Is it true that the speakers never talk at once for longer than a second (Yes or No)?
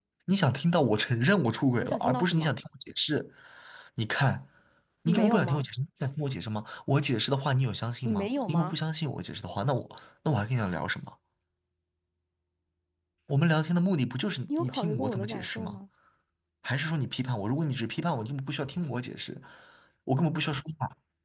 No